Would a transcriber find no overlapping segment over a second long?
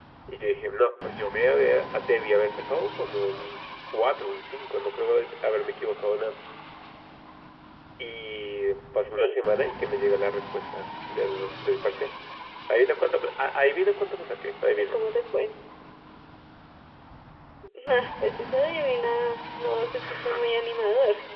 Yes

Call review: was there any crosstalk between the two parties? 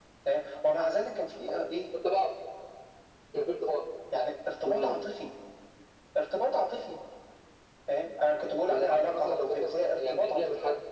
Yes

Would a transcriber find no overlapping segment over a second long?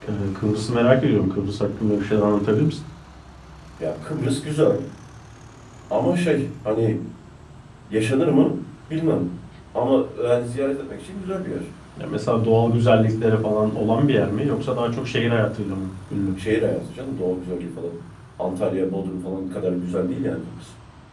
Yes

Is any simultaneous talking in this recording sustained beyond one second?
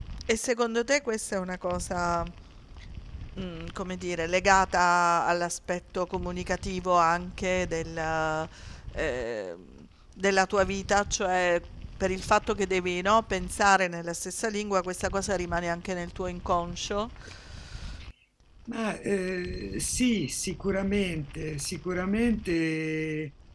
No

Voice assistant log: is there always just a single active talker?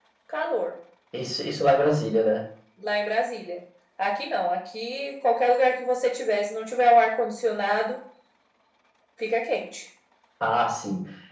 Yes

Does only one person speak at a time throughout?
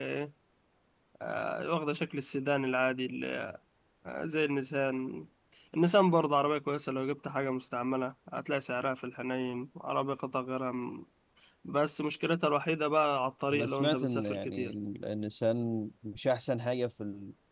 No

